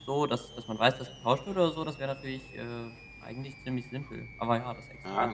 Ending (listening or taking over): taking over